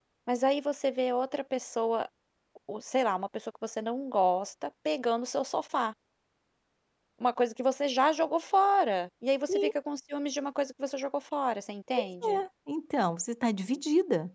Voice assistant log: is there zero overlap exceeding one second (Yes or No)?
Yes